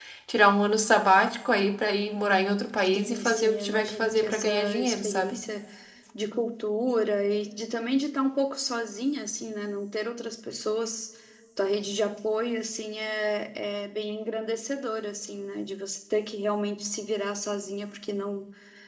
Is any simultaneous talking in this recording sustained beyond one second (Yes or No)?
Yes